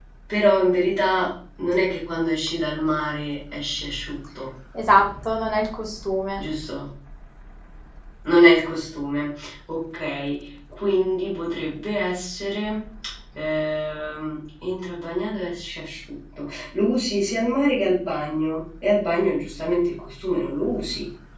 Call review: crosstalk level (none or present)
none